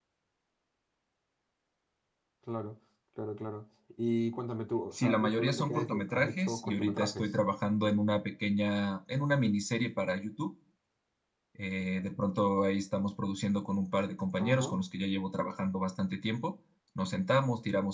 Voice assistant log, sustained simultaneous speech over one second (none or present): present